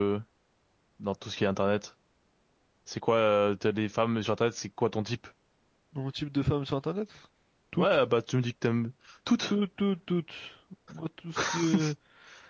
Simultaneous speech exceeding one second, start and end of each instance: none

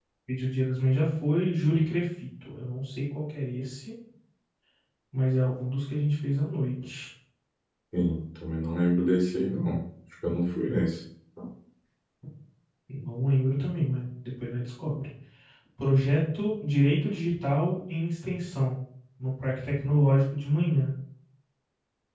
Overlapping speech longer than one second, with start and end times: none

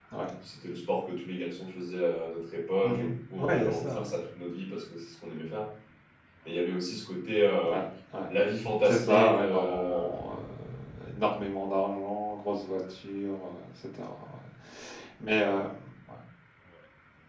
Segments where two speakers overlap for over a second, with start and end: 2.8-4.1, 8.8-10.1

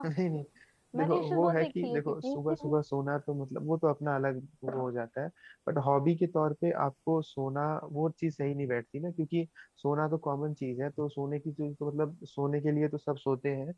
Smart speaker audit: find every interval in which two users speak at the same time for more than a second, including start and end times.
1.0-2.8

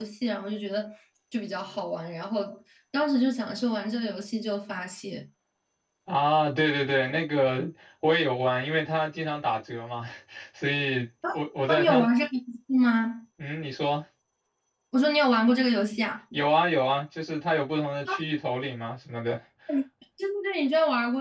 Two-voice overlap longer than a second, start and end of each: none

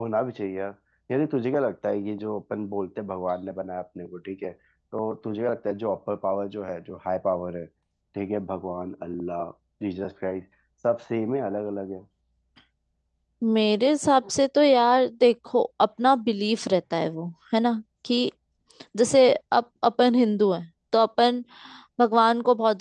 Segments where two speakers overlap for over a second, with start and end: none

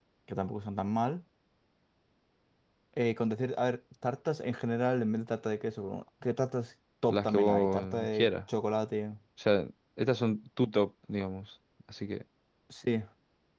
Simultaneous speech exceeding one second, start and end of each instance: 7.1-8.3

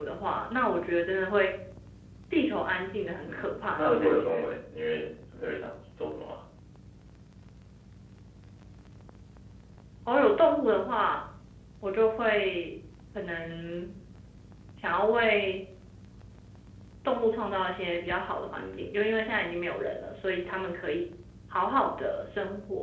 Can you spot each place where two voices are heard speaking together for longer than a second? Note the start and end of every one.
3.3-4.5

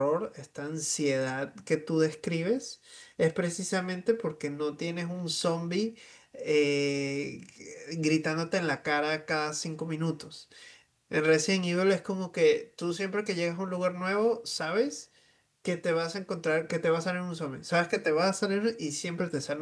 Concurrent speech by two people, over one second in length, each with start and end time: none

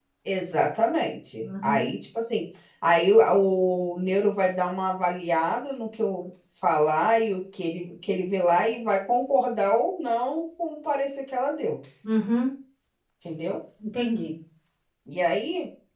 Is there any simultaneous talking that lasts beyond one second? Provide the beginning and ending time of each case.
none

